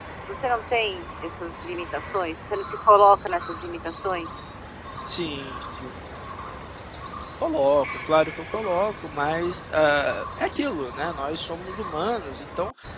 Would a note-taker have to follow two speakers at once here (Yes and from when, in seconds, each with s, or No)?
No